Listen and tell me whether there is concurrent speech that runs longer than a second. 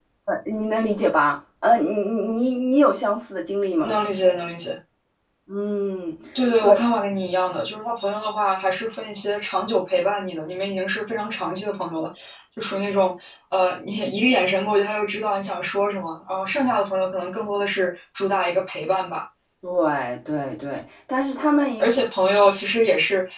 No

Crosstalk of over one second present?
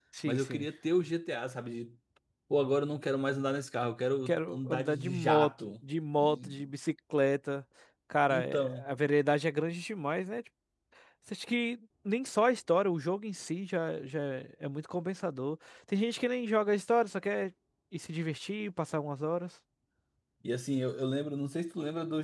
Yes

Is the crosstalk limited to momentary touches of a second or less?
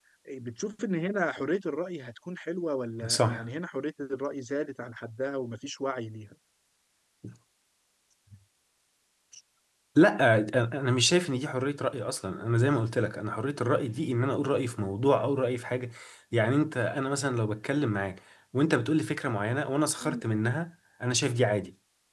Yes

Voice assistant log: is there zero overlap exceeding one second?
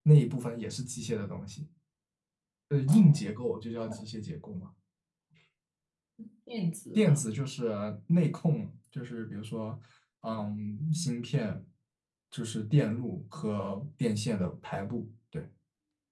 Yes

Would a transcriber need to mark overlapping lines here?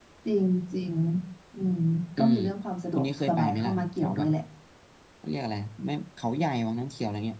Yes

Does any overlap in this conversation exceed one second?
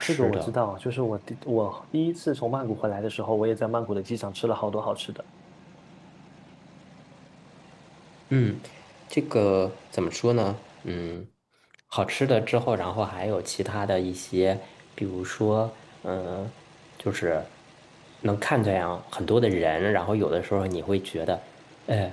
No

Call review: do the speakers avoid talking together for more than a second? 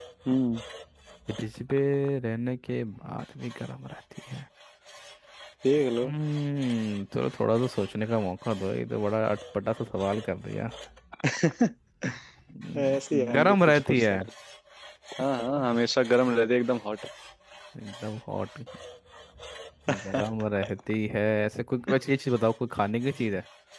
No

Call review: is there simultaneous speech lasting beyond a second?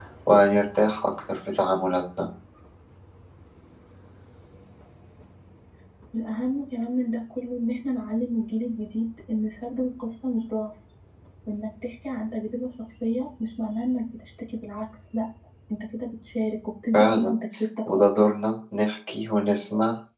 No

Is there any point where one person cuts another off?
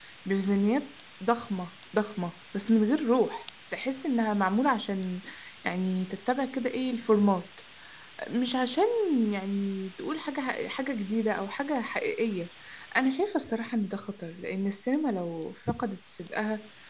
No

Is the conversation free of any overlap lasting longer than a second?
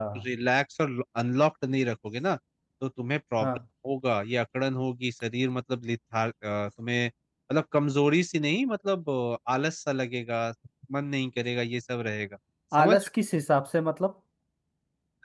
Yes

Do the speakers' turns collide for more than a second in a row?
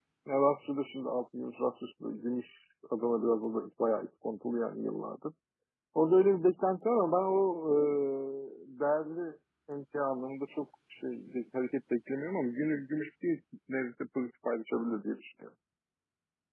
No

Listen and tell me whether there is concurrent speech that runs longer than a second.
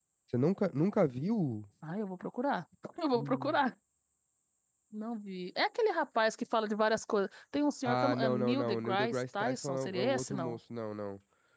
Yes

